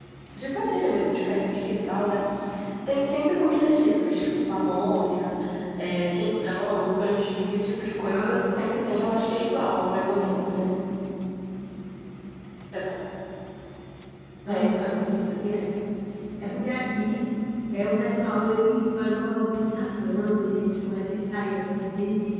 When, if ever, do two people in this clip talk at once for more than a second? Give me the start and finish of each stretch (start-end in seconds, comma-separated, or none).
none